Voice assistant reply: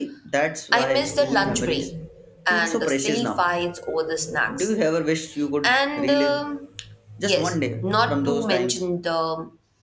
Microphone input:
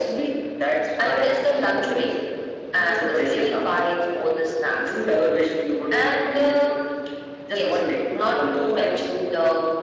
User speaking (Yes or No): No